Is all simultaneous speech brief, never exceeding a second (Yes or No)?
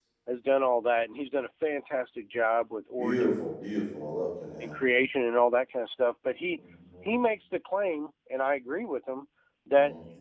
Yes